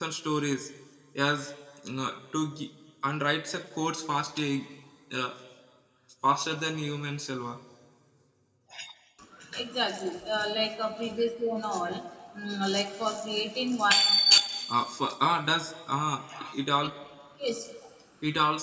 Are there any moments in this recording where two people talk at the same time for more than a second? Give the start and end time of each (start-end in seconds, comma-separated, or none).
none